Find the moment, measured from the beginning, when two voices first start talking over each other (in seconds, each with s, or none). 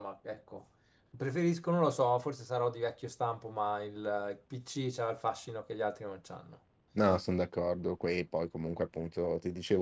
none